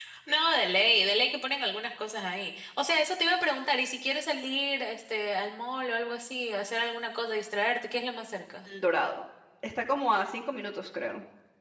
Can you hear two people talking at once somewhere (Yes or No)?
No